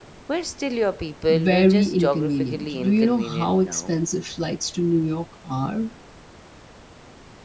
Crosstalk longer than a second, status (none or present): present